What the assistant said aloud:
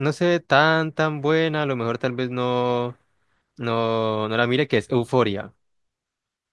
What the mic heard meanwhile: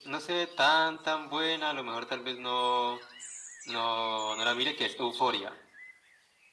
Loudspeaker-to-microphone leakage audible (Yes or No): Yes